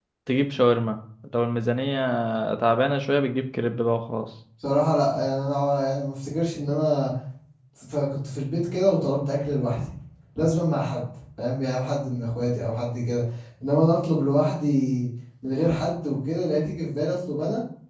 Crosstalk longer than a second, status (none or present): none